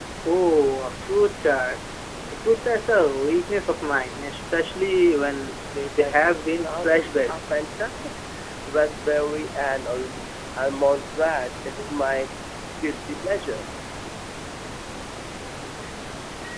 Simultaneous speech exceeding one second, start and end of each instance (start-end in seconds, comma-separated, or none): 6.0-7.4